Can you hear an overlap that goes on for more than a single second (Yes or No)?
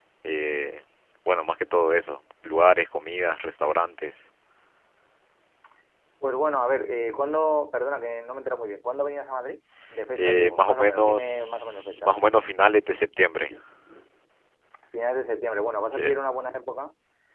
Yes